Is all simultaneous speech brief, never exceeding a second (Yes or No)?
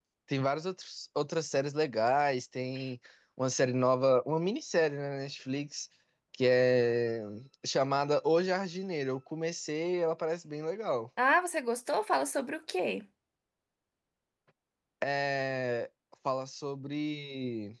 Yes